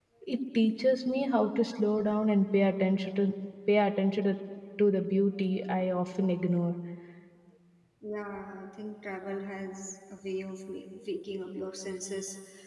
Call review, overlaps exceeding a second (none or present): none